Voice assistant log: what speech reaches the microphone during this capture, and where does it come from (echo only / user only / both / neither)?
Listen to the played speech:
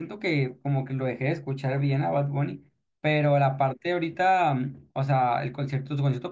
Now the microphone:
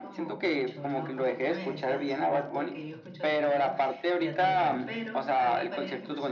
both